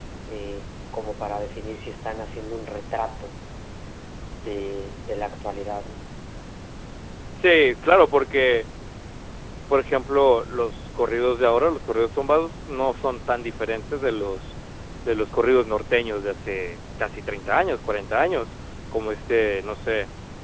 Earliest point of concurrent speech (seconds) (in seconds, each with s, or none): none